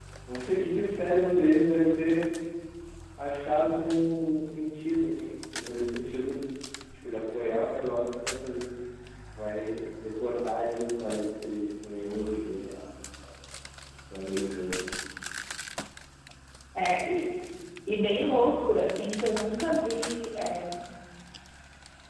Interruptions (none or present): none